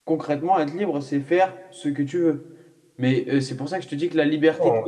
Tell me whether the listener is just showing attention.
No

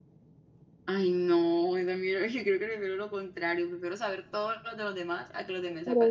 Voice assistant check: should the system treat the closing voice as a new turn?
Yes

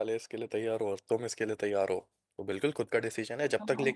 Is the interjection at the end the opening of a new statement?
No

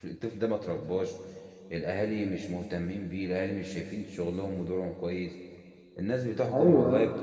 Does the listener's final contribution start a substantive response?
No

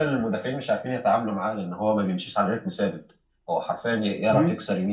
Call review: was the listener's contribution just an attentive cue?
Yes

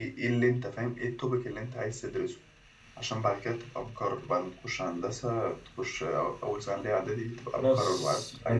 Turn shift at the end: Yes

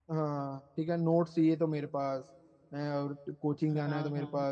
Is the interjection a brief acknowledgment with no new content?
Yes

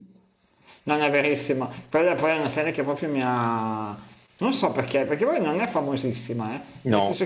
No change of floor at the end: Yes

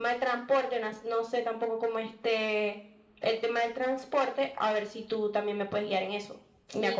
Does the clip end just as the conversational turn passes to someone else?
Yes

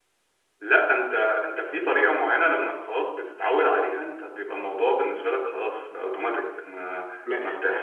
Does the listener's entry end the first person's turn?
No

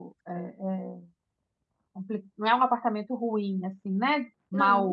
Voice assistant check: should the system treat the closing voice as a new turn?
Yes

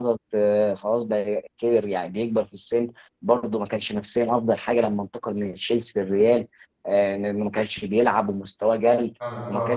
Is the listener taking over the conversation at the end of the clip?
No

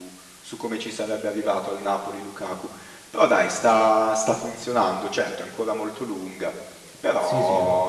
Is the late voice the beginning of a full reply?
No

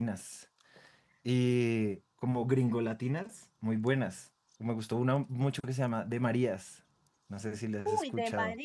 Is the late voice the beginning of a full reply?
Yes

